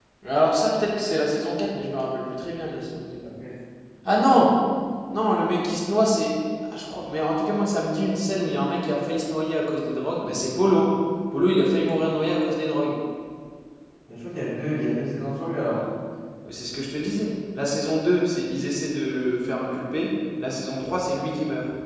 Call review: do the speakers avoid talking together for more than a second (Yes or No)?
Yes